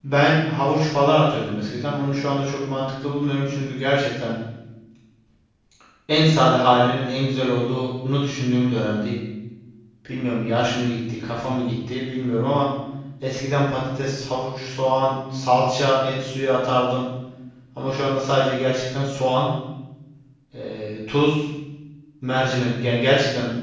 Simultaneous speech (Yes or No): No